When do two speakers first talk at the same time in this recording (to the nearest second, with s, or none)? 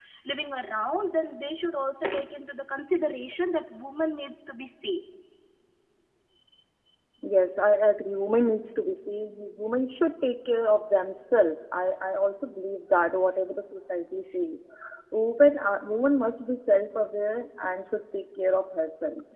none